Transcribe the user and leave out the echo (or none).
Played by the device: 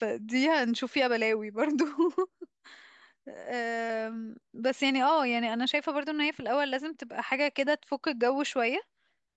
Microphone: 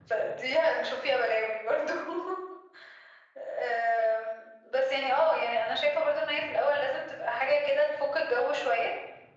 none